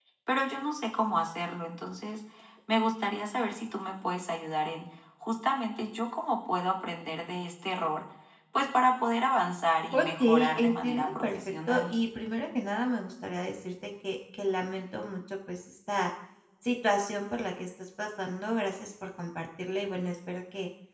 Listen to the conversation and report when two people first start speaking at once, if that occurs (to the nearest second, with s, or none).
10 s